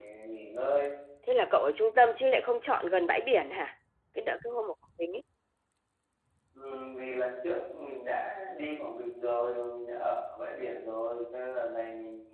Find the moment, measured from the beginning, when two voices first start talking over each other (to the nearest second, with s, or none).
none